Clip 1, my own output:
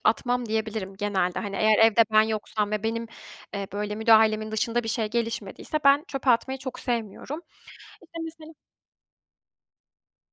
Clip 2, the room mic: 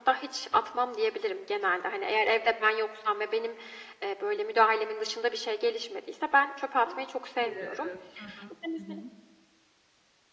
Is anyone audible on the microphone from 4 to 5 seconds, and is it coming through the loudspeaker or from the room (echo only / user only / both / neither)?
echo only